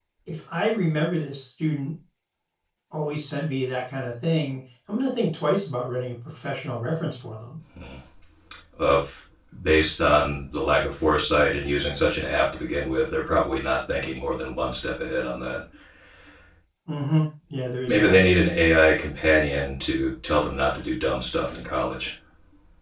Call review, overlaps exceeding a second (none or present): none